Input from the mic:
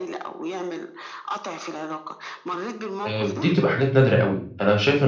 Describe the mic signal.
both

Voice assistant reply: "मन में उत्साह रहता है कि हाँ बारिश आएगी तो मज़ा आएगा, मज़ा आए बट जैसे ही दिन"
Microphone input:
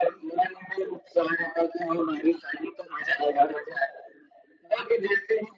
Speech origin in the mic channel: echo only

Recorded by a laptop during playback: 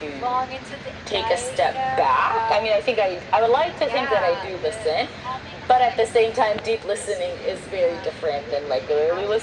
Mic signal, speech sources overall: echo only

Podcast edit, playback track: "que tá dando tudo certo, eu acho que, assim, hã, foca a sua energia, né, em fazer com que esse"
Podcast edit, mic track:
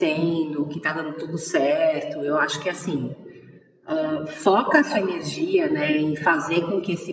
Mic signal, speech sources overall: echo only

